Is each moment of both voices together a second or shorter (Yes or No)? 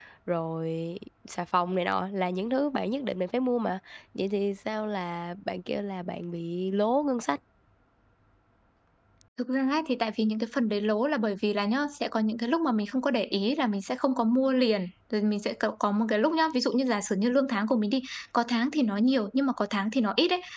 Yes